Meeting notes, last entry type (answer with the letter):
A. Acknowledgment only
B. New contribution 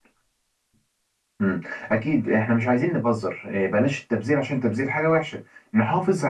A